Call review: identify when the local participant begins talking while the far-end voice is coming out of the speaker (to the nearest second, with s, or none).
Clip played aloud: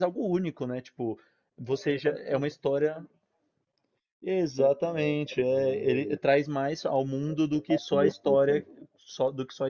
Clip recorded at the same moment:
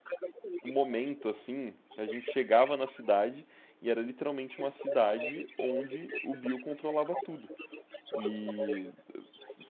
1 s